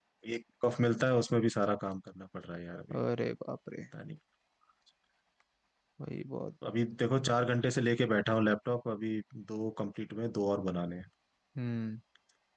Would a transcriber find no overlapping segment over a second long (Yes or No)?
Yes